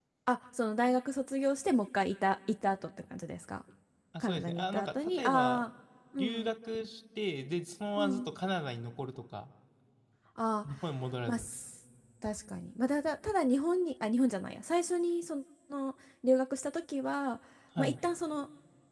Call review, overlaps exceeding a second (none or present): present